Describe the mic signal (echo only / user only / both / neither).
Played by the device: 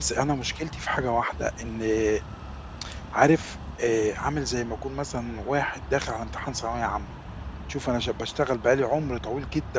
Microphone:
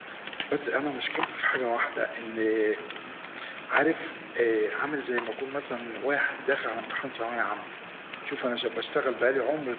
echo only